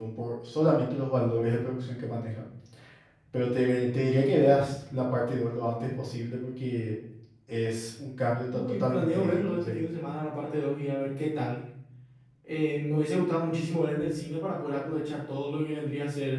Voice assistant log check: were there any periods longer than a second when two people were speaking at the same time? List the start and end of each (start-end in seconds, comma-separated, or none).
8.5-9.8